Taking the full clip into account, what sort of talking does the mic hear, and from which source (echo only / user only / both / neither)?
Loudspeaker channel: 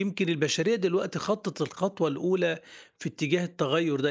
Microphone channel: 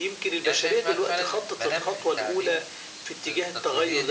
both